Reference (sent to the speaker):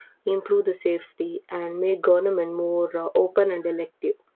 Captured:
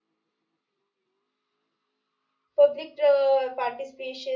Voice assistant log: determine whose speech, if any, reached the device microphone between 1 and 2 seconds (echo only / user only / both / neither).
neither